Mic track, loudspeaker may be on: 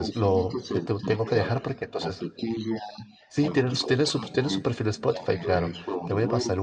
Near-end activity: present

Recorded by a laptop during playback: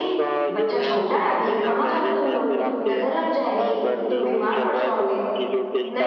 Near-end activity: present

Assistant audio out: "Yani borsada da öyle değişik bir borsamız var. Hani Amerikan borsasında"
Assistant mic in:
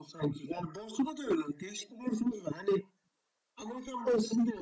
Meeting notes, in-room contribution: none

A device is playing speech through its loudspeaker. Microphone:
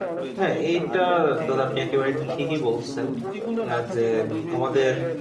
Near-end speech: present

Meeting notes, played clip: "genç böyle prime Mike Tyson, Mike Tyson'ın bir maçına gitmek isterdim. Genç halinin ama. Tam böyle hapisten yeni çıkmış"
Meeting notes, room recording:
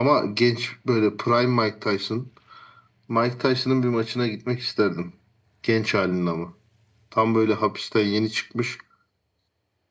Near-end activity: none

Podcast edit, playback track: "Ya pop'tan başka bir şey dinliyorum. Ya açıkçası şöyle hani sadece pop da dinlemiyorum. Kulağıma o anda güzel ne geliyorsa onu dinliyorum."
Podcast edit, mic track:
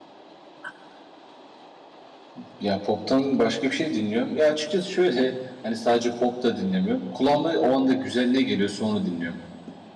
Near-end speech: none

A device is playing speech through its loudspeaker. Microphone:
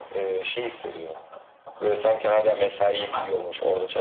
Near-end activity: none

